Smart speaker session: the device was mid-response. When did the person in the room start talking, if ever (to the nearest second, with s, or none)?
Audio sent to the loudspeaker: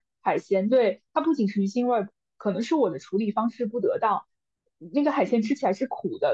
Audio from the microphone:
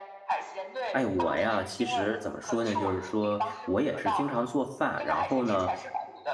1 s